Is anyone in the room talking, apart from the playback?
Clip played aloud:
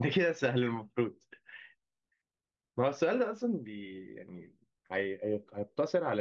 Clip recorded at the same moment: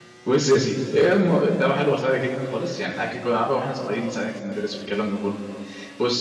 Yes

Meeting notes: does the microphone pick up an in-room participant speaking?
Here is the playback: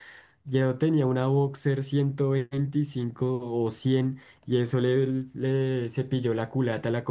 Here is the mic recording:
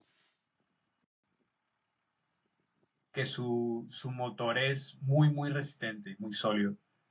Yes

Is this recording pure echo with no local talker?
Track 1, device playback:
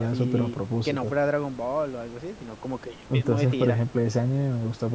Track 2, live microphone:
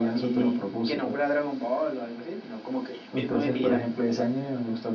Yes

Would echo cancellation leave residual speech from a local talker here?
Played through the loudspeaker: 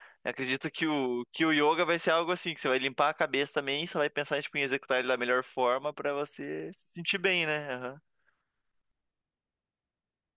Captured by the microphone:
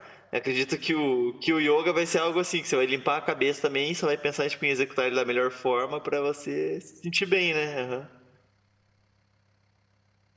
No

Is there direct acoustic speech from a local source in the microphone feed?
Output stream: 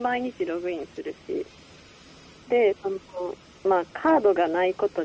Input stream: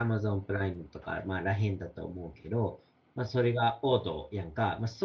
Yes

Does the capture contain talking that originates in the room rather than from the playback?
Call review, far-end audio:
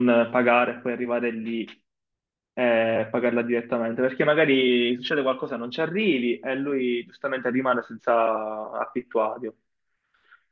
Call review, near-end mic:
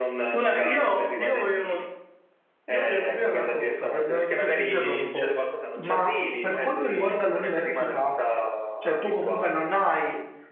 Yes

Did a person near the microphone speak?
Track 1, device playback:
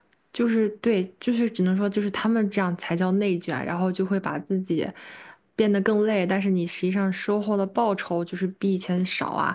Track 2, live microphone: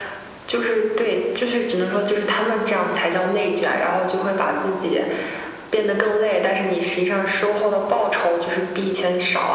No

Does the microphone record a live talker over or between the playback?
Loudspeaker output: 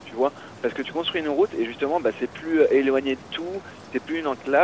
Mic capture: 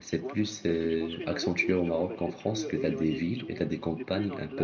Yes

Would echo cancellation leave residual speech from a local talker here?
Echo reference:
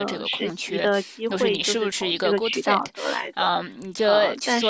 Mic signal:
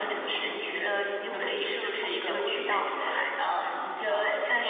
No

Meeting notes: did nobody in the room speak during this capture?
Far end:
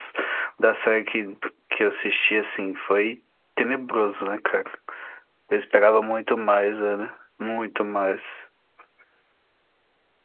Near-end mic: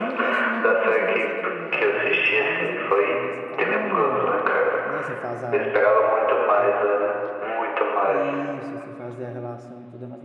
No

